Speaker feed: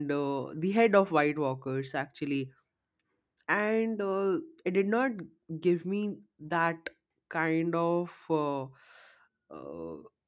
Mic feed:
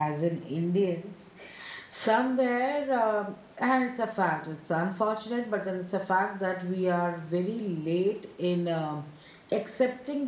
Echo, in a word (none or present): none